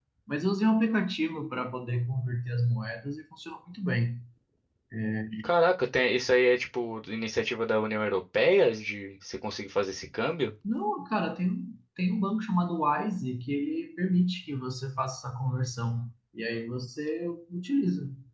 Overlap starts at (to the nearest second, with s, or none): none